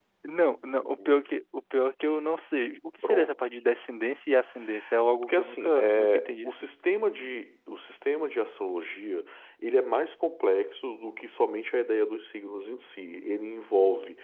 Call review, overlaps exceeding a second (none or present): present